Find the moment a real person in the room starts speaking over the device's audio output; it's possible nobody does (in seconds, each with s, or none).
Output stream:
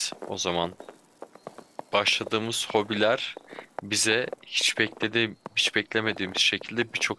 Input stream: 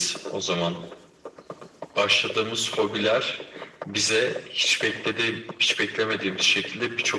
none